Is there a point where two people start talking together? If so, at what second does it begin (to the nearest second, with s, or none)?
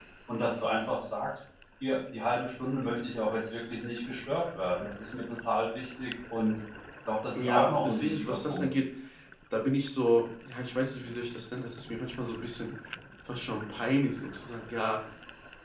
7 s